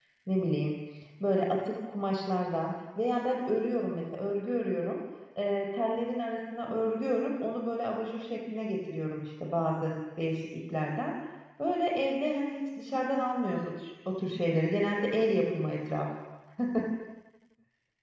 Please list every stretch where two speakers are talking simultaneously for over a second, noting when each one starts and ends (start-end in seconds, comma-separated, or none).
none